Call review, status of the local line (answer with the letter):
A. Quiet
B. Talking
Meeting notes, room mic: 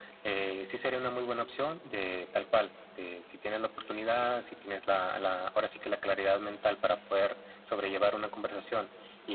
A